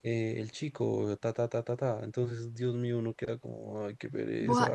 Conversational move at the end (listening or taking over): taking over